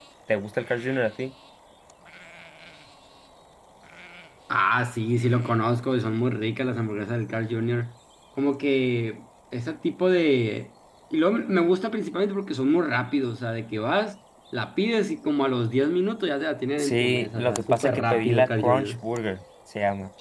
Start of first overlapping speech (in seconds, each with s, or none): 16.8 s